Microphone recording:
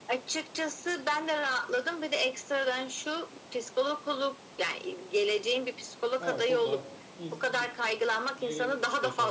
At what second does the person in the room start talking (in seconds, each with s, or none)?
6.2 s